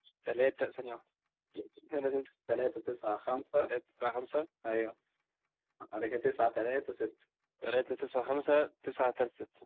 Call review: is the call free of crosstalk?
Yes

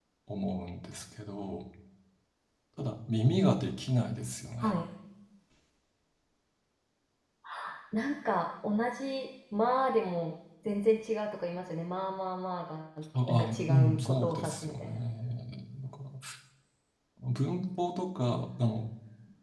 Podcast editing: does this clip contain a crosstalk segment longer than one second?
Yes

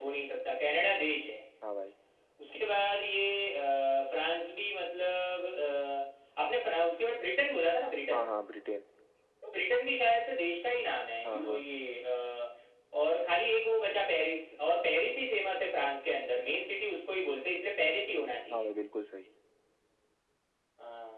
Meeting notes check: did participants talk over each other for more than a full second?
No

